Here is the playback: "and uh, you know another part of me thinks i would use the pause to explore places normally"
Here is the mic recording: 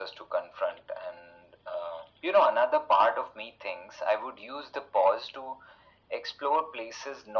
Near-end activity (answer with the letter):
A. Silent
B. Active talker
A